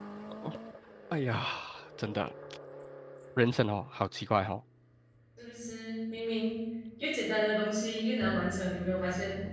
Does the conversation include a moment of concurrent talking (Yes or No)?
No